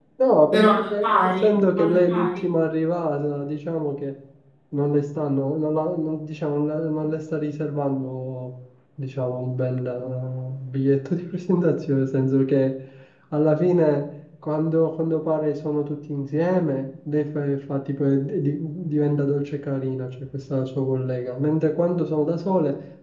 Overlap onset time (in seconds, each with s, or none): 0.5 s